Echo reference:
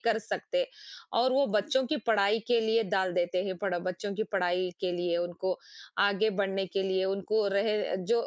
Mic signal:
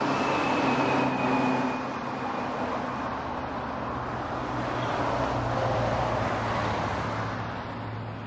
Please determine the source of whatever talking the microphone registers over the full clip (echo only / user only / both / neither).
neither